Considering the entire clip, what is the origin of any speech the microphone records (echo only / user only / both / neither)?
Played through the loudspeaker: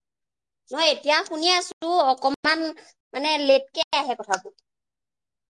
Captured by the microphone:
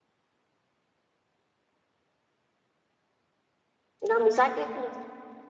user only